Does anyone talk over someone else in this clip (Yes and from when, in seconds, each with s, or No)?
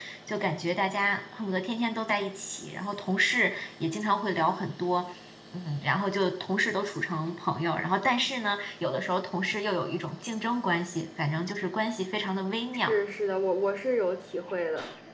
No